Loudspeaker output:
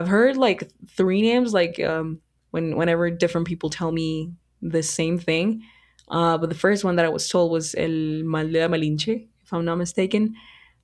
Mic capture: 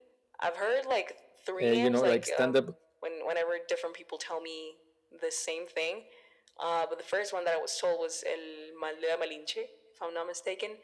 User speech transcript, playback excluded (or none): uh, you know, like stand-up